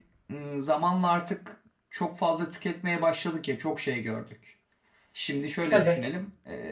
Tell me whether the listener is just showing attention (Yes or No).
Yes